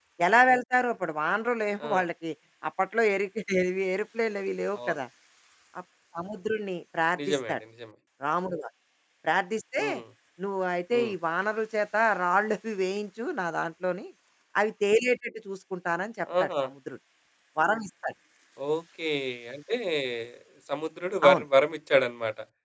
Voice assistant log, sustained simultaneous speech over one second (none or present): none